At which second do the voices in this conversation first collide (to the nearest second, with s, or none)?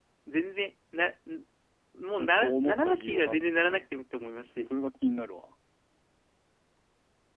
2 s